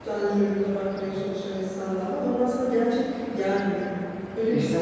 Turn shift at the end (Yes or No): Yes